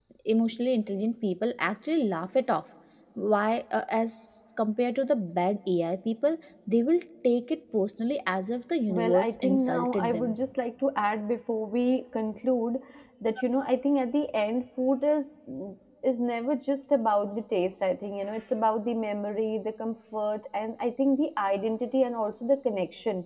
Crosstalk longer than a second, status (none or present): present